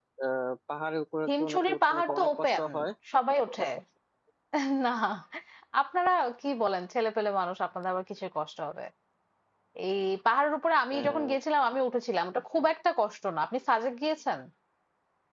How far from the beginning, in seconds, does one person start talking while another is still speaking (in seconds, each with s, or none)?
1.3 s